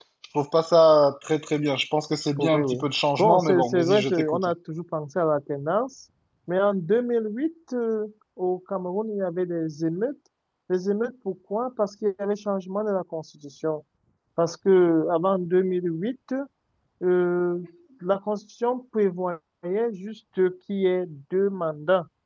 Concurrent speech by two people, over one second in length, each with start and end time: 3.2-4.5

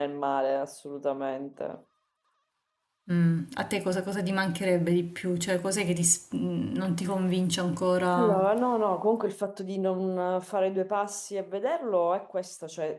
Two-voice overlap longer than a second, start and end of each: none

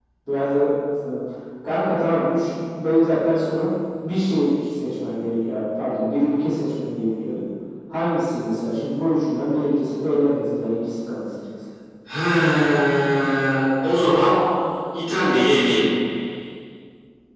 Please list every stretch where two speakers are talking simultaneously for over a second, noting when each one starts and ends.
none

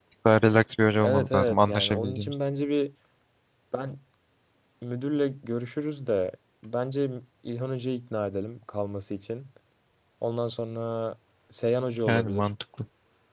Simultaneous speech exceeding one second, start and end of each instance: 1.0-2.3

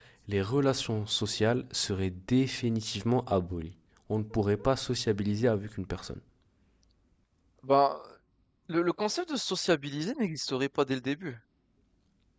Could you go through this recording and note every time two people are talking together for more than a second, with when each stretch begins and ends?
none

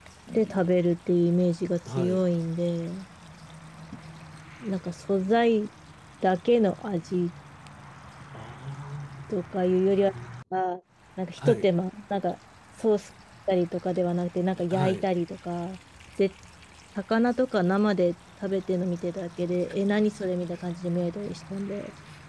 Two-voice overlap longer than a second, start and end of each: none

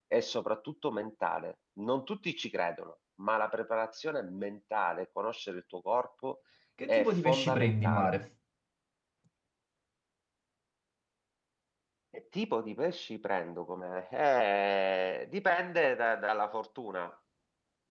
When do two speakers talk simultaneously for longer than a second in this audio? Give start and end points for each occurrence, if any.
6.9-8.1

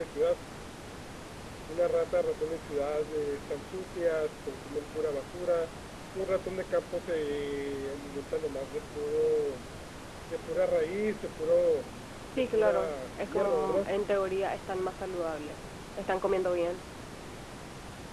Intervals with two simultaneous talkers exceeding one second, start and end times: 12.4-13.9

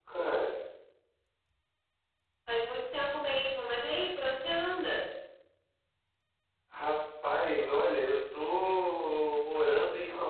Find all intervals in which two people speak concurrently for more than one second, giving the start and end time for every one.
none

